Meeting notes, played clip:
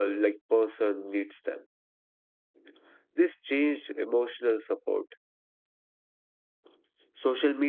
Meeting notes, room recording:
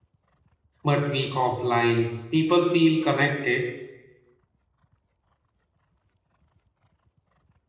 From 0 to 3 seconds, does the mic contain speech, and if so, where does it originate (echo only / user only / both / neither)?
user only